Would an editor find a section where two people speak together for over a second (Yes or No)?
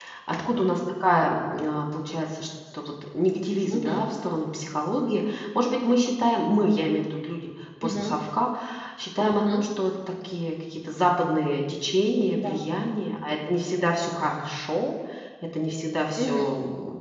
No